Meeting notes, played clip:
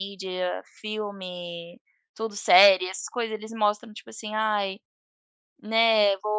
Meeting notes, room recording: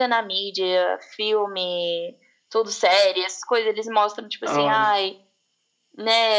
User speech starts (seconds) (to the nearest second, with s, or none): 4 s